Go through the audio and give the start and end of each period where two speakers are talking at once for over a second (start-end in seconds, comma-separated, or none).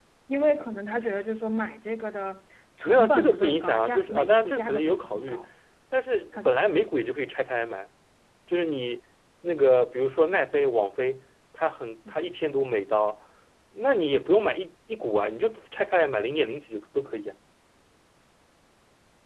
2.8-5.4